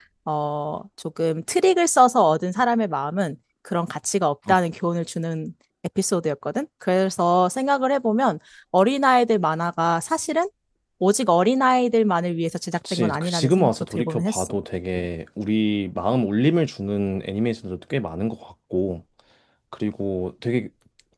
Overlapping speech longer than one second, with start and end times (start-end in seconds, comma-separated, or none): 12.9-14.5